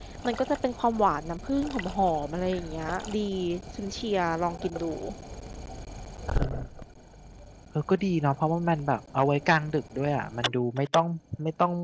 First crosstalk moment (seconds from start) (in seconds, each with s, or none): none